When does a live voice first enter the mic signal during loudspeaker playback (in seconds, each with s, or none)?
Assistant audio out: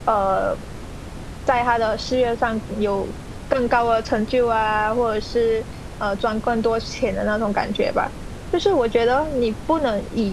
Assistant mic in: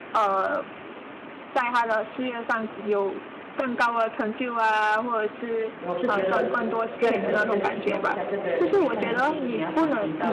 5.7 s